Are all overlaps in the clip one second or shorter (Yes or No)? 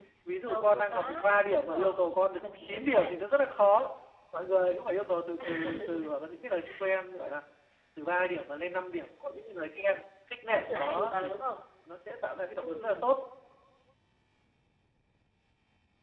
No